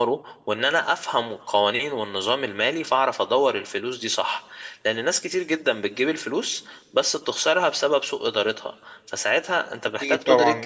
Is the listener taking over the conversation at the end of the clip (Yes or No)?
Yes